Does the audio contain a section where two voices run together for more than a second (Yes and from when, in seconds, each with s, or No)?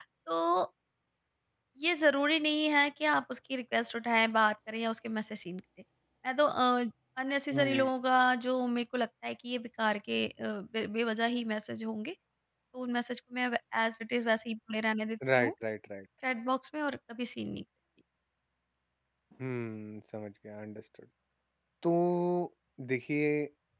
No